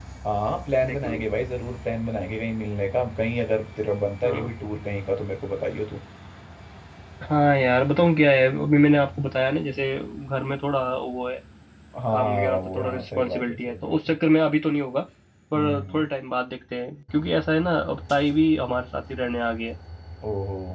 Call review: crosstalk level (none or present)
present